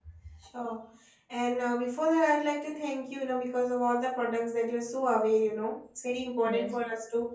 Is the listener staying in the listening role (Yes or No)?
Yes